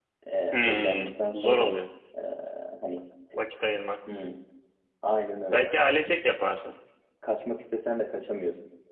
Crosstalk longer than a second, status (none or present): present